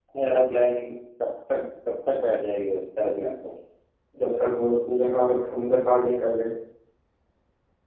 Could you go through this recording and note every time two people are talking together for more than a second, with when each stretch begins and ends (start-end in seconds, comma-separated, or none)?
none